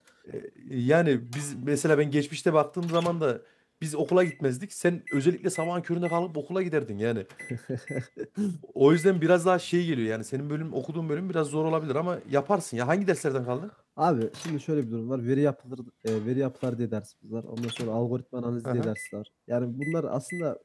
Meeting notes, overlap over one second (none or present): none